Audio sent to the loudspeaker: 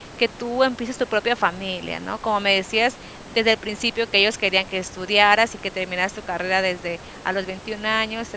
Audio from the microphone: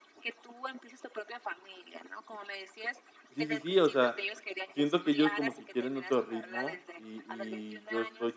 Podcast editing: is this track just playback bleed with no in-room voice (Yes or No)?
No